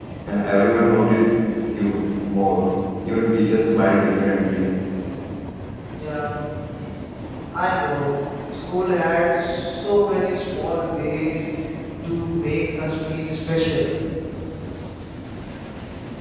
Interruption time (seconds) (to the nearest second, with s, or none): none